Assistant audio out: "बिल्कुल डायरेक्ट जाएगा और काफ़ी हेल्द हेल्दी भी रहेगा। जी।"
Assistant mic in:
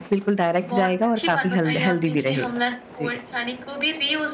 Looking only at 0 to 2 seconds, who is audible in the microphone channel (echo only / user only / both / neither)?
both